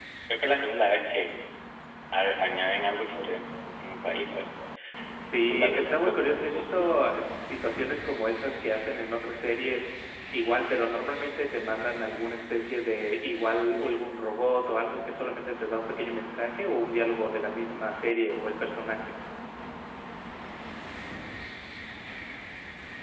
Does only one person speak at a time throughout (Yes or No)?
No